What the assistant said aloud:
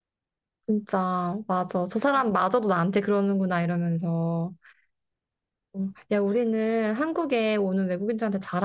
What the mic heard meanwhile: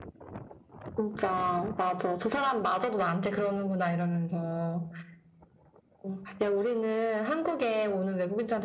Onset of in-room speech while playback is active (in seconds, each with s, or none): none